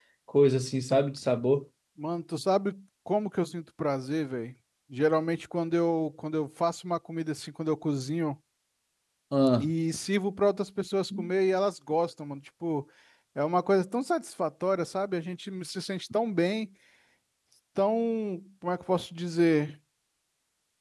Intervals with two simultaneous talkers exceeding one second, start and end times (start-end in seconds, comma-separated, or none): none